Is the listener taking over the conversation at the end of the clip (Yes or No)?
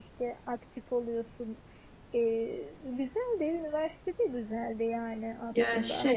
Yes